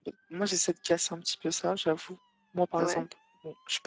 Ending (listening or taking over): listening